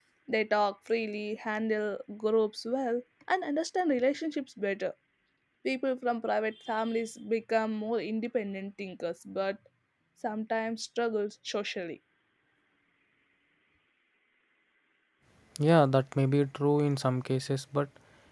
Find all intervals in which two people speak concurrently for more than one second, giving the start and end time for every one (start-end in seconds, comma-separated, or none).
none